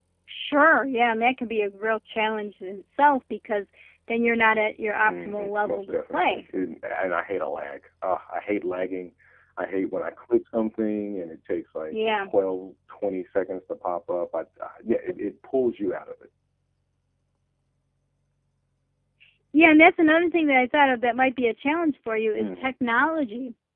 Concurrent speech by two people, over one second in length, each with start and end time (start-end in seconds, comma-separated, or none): 5.0-6.4